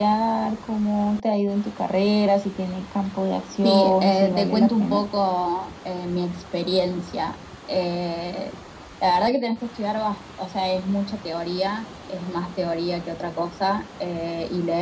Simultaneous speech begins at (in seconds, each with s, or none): 3.6 s